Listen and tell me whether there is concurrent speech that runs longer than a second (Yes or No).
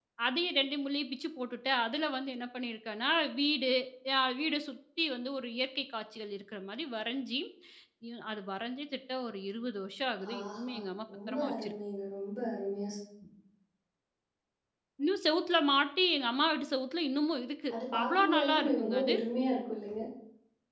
Yes